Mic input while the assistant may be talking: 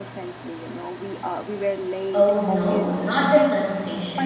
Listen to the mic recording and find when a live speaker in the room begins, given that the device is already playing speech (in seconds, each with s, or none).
2.1 s